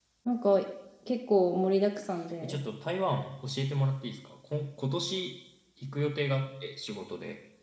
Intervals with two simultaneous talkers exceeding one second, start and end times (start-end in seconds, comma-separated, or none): none